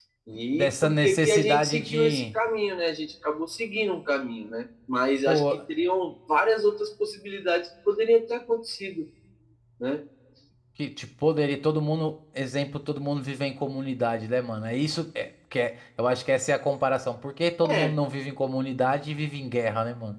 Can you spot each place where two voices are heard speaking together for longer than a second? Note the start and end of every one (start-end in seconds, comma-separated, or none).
0.5-2.4